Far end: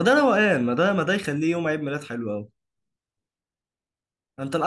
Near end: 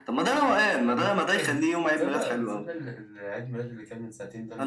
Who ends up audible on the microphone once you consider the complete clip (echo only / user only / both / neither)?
both